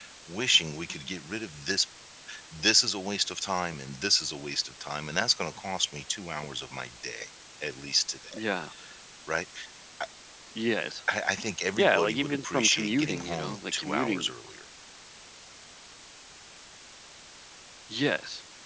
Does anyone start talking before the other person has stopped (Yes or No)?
Yes